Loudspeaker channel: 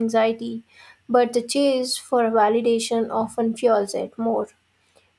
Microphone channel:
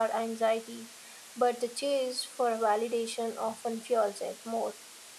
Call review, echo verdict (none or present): present